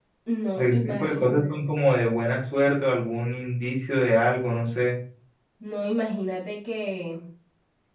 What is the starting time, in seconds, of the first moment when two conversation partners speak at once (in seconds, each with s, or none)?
0.6 s